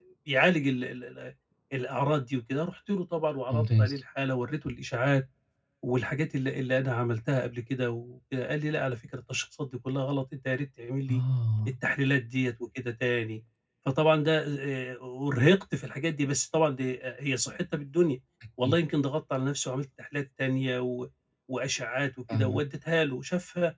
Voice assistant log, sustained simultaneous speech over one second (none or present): none